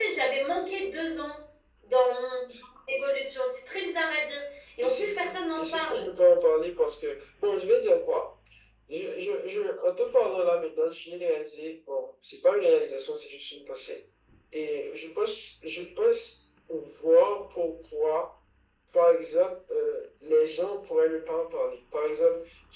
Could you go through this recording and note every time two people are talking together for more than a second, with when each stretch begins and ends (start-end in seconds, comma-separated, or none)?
4.8-6.1